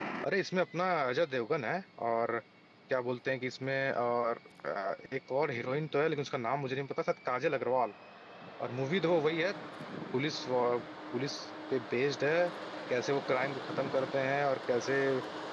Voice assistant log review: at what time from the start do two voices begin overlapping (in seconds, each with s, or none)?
none